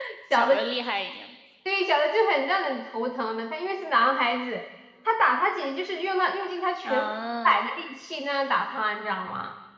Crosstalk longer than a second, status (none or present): none